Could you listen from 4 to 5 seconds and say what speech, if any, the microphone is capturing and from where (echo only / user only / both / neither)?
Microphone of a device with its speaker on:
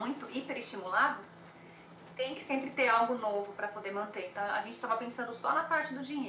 echo only